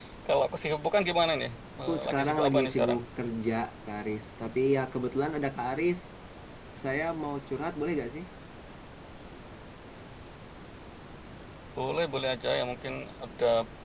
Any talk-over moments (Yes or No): Yes